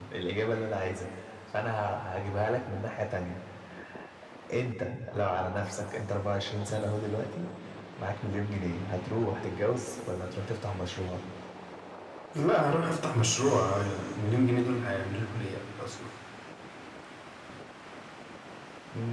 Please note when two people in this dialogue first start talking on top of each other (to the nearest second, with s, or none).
none